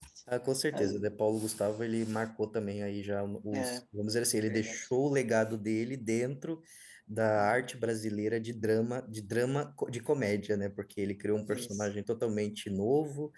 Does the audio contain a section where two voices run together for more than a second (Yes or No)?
No